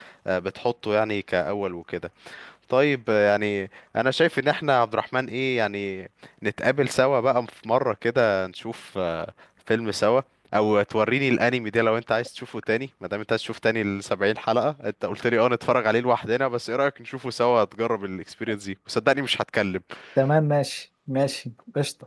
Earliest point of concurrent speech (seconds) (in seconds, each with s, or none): none